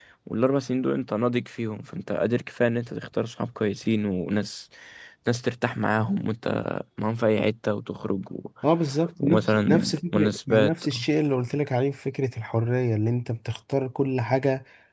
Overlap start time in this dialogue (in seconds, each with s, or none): 9.2 s